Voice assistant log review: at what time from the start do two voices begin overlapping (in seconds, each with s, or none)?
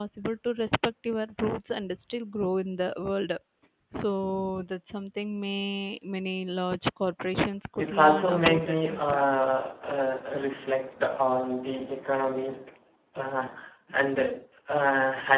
7.8 s